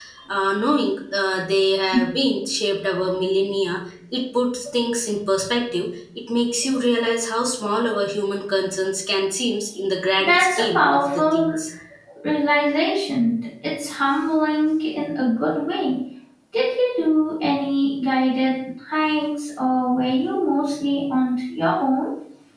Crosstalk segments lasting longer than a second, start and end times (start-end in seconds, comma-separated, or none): 10.2-11.6